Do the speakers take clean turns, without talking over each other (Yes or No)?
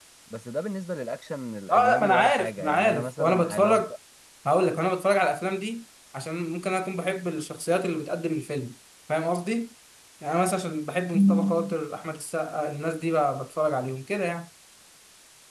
No